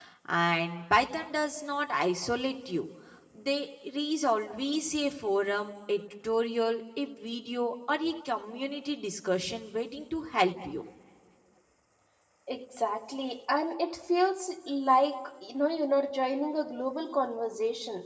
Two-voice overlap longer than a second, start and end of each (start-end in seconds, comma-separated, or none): none